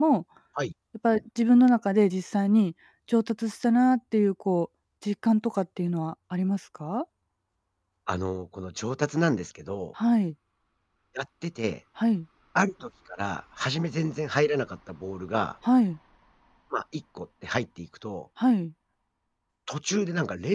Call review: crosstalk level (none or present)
none